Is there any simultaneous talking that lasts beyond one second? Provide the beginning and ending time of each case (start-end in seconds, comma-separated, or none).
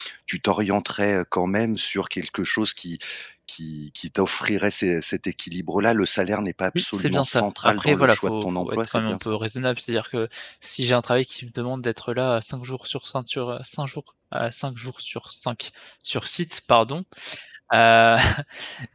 6.8-9.4